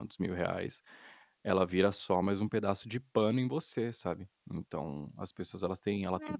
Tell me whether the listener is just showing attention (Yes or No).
No